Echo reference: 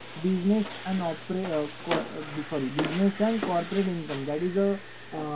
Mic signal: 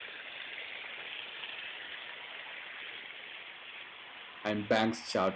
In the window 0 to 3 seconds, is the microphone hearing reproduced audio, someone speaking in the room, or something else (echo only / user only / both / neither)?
neither